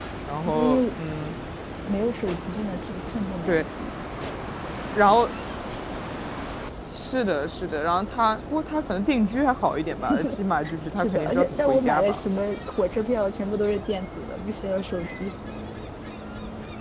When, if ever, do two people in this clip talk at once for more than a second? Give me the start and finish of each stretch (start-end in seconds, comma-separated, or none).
11.0-12.2